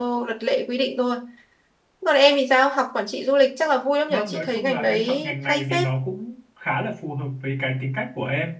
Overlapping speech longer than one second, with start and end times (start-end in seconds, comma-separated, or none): 4.1-5.9